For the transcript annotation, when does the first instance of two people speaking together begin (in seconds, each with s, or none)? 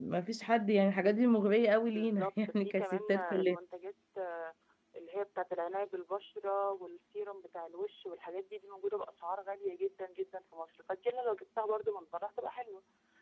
1.9 s